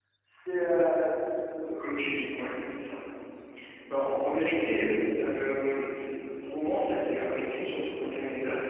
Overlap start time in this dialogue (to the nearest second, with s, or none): none